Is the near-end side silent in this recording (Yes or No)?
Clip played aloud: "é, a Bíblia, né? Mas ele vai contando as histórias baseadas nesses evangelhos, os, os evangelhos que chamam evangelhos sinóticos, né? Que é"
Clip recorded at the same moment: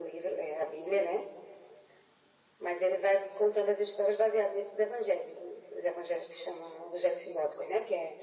Yes